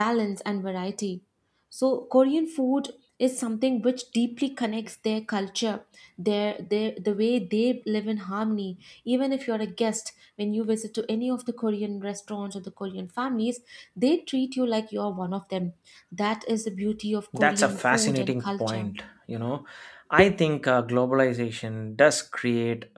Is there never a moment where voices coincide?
No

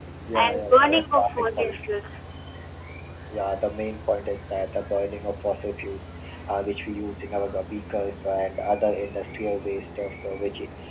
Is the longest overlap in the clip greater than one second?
Yes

